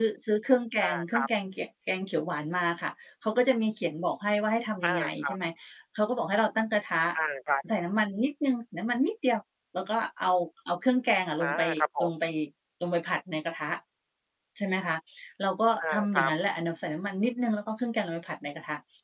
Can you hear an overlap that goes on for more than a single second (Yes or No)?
No